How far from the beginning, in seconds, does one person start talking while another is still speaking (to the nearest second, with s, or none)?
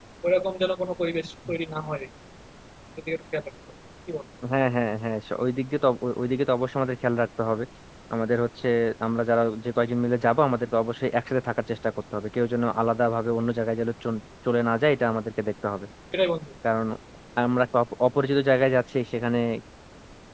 none